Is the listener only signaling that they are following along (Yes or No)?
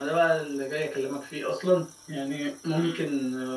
Yes